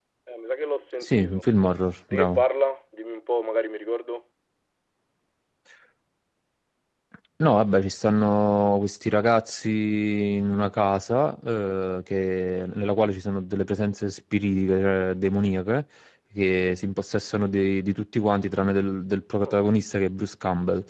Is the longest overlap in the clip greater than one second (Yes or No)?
No